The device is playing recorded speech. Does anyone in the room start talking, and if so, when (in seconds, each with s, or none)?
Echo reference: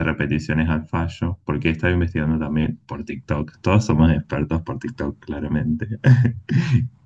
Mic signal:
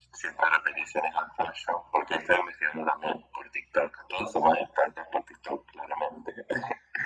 none